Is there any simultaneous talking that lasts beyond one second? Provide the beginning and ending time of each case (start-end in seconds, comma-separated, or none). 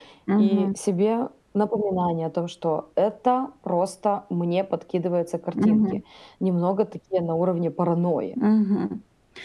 none